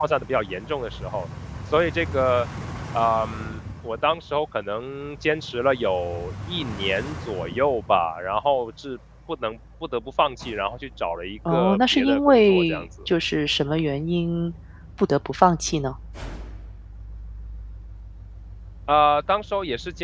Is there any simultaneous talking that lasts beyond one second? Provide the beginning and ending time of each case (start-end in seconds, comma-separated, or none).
11.5-12.9